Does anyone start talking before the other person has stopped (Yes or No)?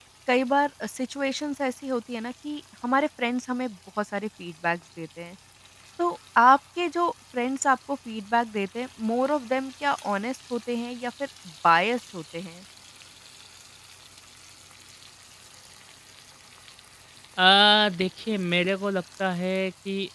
No